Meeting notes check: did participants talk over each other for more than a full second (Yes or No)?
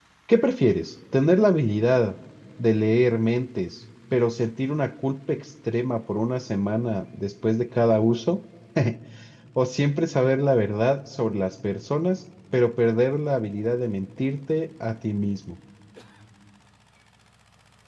No